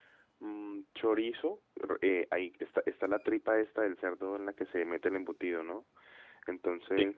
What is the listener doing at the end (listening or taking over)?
listening